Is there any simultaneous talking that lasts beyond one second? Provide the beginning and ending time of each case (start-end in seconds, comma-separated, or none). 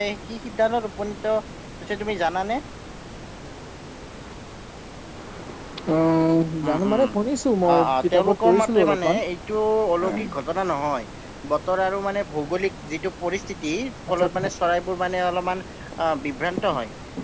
7.8-9.2